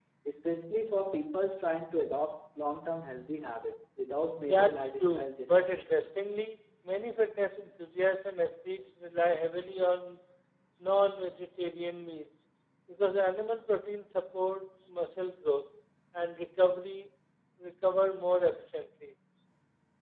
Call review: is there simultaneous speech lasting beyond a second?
Yes, from 4.4 s

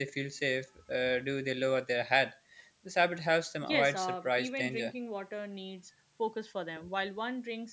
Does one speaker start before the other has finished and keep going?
Yes, from 3.6 s

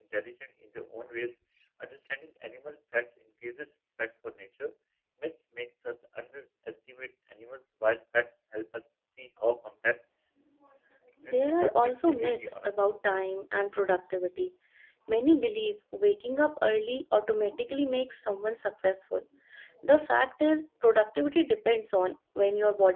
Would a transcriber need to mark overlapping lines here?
Yes, from 11.3 s

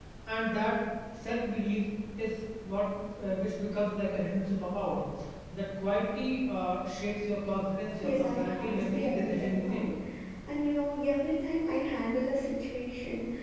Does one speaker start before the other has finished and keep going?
Yes, from 8.0 s

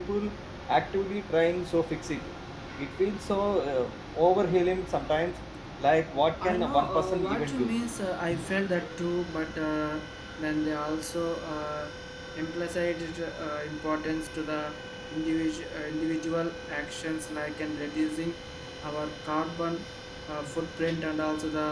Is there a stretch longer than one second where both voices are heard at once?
Yes, from 6.4 s

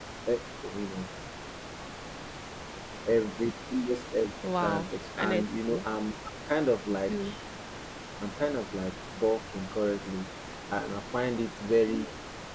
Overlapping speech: Yes, from 4.6 s

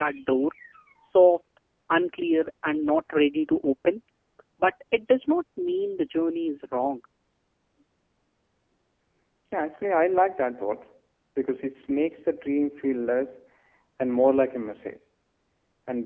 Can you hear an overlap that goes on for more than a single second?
No

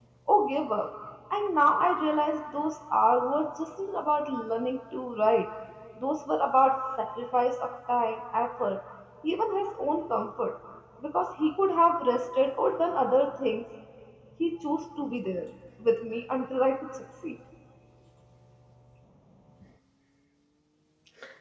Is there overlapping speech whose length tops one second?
No

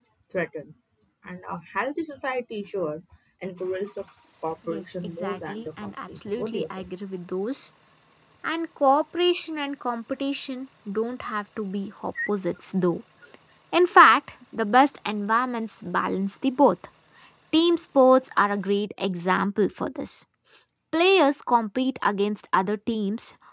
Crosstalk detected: Yes, from 4.7 s

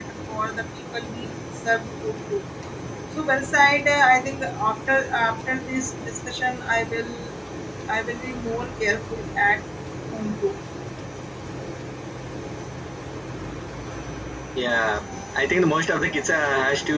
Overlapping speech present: No

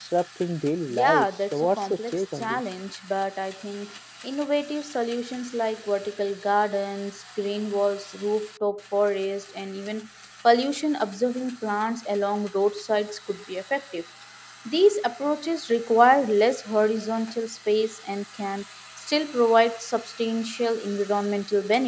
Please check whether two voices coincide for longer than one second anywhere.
Yes, from 0.9 s

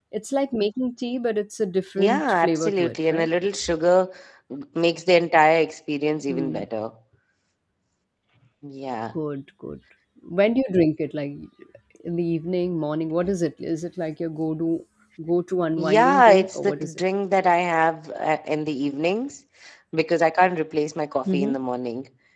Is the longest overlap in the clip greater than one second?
Yes, from 2.0 s

